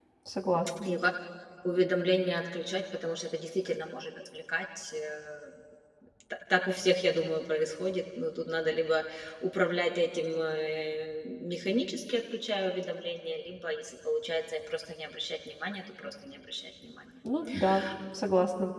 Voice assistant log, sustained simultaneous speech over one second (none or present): none